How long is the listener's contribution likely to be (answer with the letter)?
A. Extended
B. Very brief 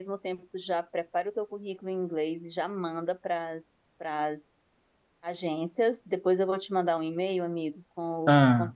B